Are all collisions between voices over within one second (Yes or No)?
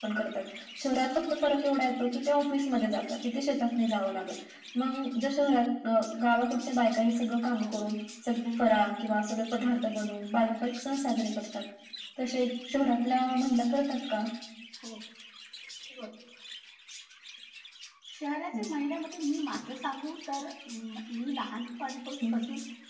Yes